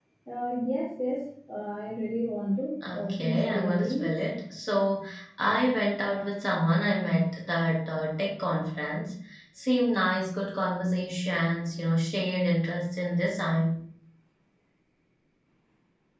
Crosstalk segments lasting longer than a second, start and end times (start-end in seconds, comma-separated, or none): 2.9-4.2